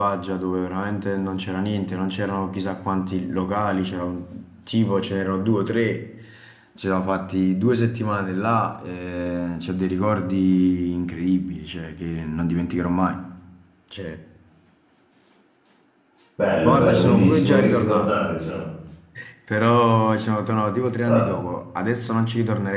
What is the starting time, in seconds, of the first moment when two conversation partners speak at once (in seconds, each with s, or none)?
16.6 s